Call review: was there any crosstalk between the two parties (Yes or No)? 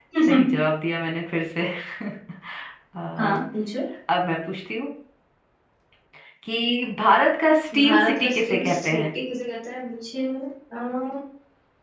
Yes